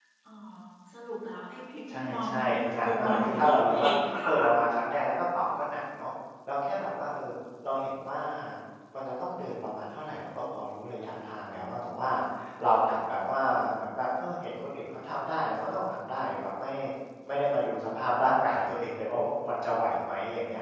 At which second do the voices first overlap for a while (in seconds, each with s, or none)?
1.9 s